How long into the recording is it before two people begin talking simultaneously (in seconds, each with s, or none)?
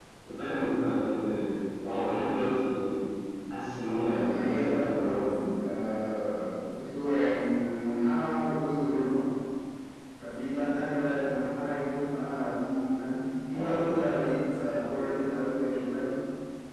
4.0 s